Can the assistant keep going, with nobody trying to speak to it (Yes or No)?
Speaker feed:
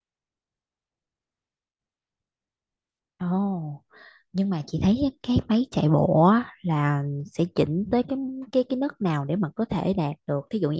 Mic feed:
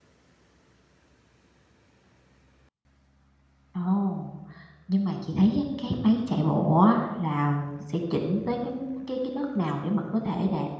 Yes